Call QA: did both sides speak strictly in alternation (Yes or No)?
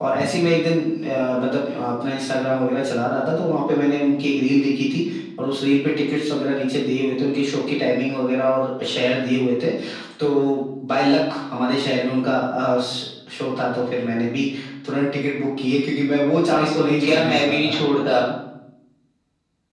No